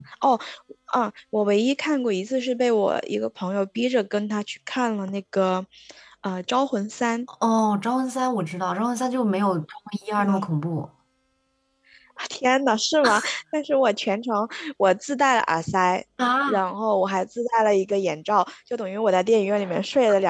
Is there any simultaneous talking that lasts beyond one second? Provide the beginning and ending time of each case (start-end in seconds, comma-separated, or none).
none